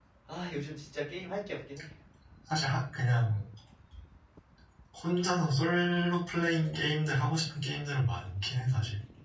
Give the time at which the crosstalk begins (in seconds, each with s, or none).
none